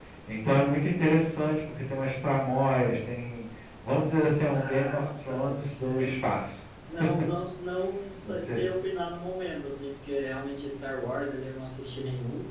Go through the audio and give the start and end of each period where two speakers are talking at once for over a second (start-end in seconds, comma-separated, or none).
4.5-6.2